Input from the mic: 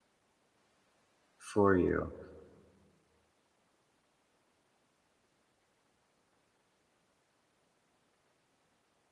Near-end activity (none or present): present